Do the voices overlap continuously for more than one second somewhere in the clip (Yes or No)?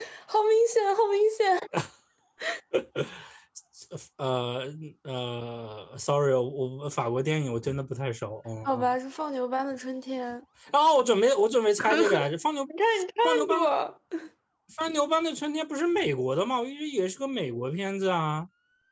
No